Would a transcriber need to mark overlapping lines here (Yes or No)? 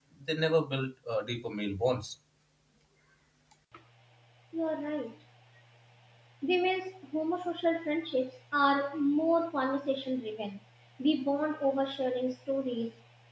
No